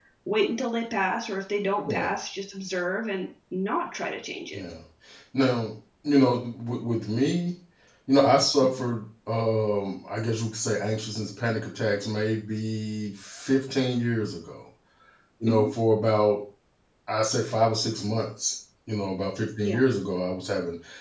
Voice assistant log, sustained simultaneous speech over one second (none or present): none